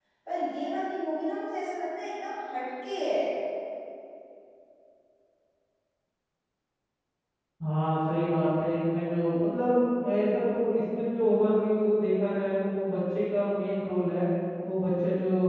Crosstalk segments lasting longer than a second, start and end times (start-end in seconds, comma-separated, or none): none